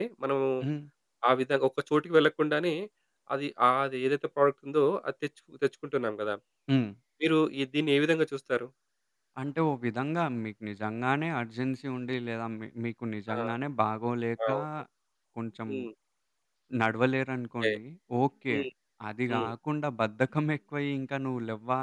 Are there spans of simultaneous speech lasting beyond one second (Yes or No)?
No